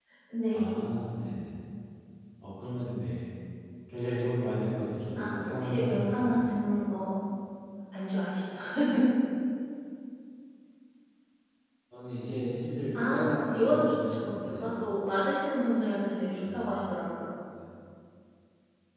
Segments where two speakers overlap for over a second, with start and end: 5.2-6.5, 12.9-14.7

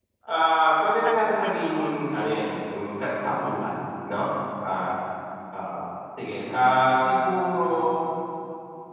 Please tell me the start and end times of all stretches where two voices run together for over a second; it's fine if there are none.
1.0-2.5

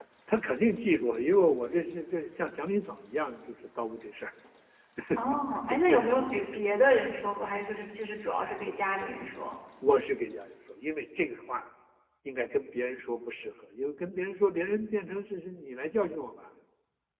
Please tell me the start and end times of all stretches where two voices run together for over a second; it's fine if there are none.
none

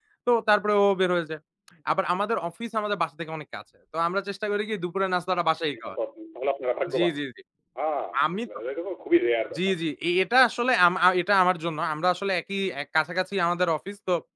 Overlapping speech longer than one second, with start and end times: none

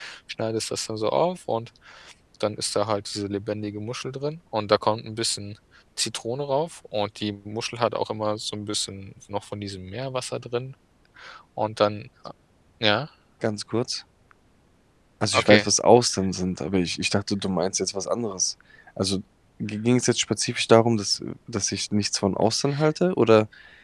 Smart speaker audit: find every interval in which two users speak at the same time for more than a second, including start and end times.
none

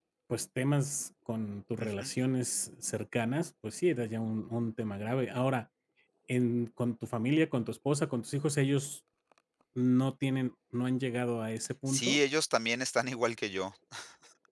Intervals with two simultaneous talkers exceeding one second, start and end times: none

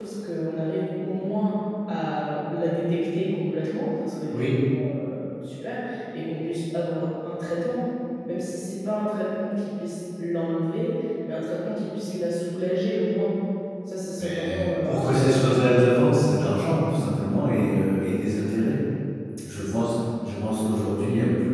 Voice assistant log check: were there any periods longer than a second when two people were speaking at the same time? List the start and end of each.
14.2-15.6

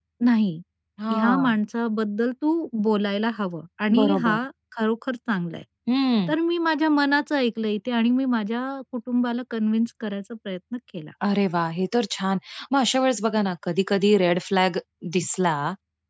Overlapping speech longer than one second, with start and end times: none

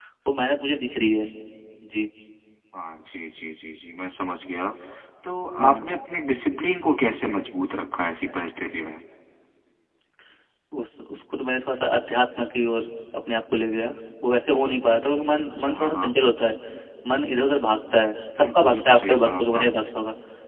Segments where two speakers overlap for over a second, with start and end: 18.4-19.7

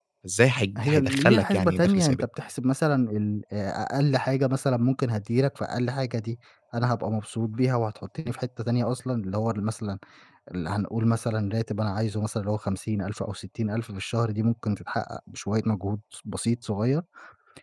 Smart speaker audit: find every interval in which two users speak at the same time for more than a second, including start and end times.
0.8-2.2

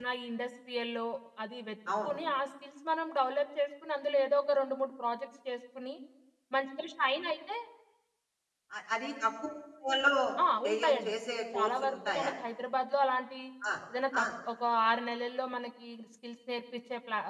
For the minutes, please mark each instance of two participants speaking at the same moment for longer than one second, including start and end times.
10.6-12.3

